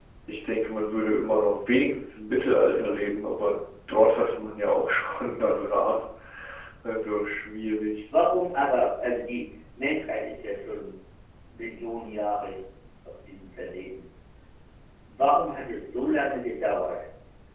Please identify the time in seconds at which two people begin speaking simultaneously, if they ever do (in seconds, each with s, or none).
none